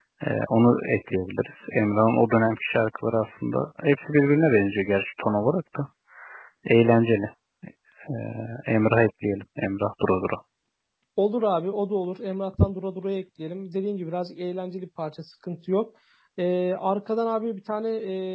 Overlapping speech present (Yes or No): No